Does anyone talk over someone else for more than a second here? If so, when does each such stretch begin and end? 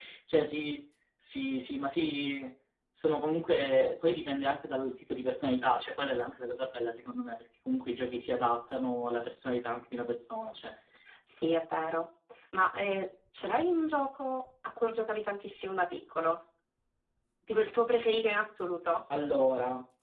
none

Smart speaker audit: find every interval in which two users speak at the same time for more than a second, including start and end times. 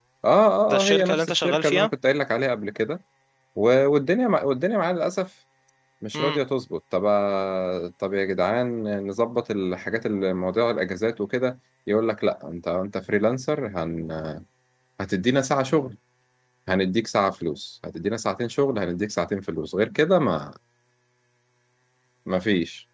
0.7-1.9

